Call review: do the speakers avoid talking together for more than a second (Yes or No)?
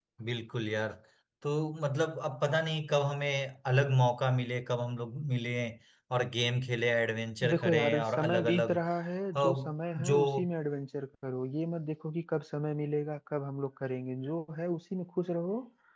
No